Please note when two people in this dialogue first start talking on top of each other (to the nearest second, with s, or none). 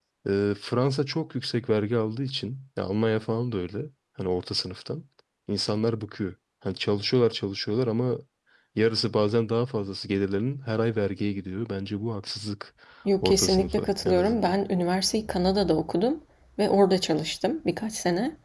13 s